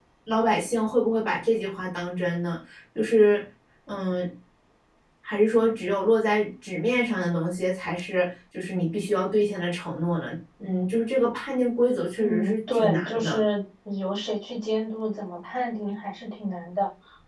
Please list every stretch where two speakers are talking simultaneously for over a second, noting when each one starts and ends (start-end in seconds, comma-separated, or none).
12.2-13.4